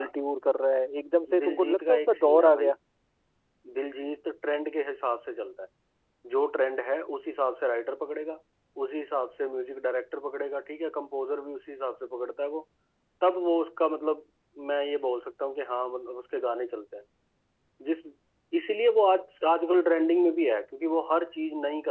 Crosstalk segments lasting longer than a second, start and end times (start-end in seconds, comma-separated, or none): 1.4-2.8